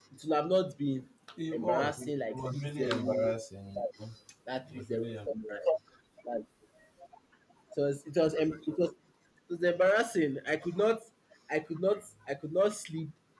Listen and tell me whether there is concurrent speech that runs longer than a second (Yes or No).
Yes